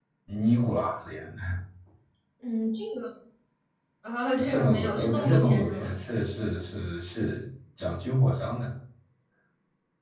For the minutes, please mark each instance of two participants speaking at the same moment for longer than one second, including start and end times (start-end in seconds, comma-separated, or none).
4.4-5.9